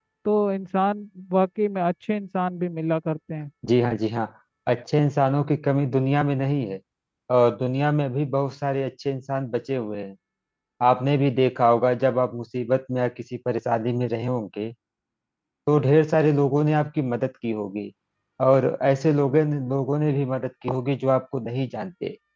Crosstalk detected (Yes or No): No